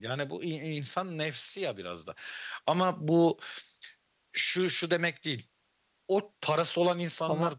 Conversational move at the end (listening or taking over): listening